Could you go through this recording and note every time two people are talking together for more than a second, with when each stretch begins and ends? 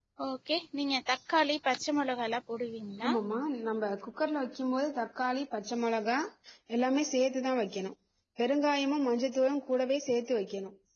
none

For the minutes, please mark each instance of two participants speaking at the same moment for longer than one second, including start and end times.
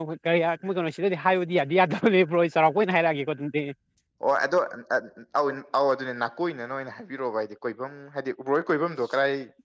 none

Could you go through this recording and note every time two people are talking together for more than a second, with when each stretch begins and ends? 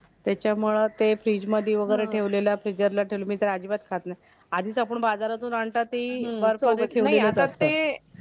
6.4-7.7

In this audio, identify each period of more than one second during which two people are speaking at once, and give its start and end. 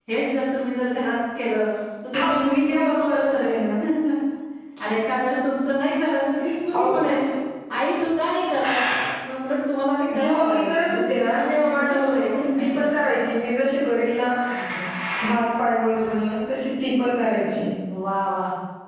2.1-3.6, 10.2-12.3

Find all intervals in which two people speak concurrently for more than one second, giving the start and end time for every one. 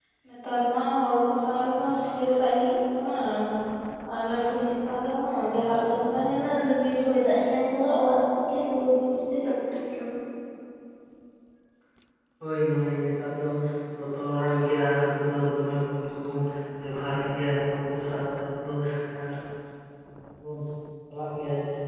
none

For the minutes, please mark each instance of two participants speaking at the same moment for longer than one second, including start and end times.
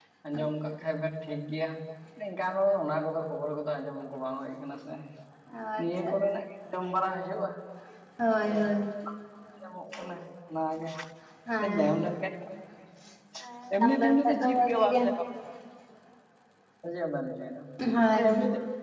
13.8-15.0

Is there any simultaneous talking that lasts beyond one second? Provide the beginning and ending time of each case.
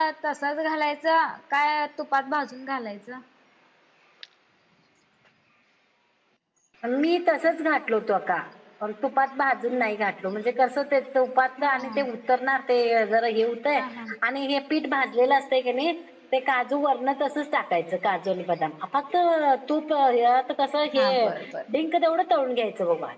none

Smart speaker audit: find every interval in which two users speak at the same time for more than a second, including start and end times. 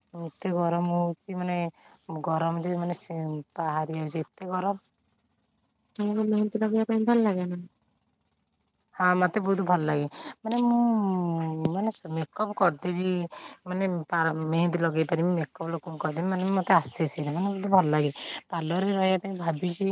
none

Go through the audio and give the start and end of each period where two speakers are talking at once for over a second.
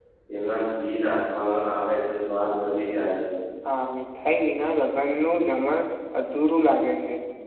none

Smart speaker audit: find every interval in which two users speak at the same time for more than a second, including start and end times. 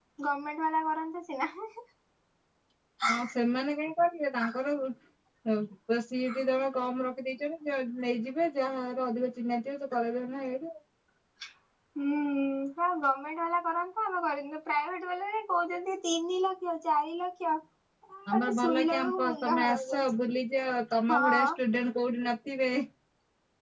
18.3-20.1

